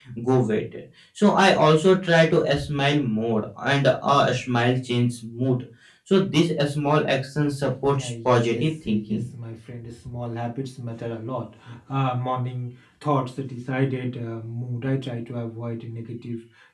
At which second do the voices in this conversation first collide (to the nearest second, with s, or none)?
8 s